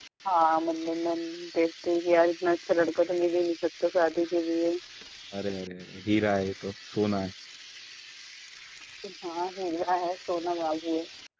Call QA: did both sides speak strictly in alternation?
Yes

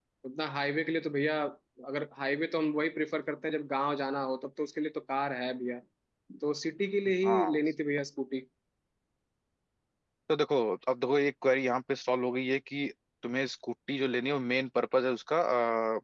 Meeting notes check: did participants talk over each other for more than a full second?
No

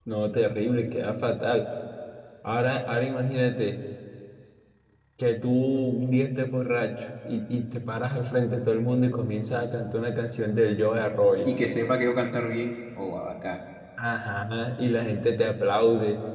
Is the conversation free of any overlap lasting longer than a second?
Yes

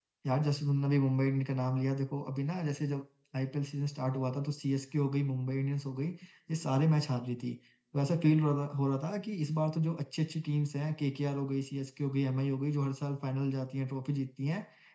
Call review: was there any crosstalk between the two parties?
No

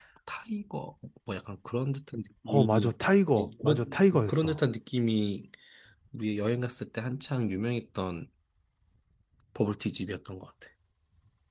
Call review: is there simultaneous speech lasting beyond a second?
Yes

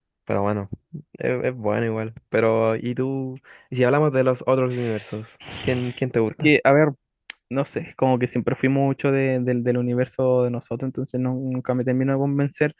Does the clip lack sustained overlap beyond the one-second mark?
Yes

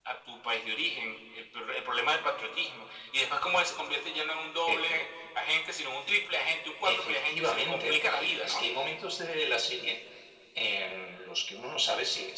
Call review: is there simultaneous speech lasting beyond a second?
Yes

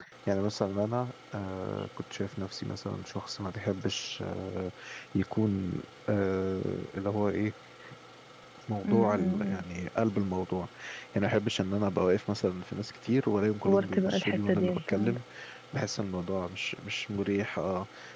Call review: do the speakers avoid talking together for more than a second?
No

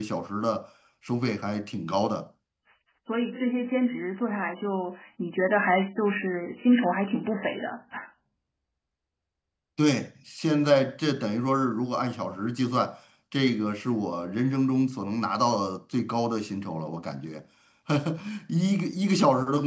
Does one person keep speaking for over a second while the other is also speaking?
No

